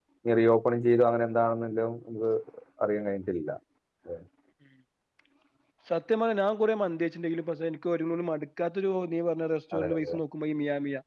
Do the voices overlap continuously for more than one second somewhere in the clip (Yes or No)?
No